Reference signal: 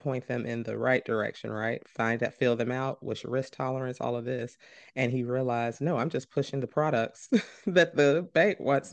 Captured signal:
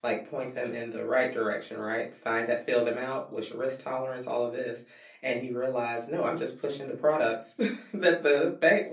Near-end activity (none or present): none